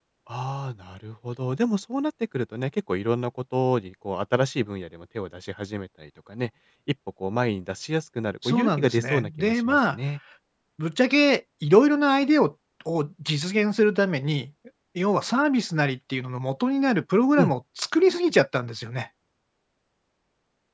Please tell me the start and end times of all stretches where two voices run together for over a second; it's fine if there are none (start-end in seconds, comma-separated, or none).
8.4-10.0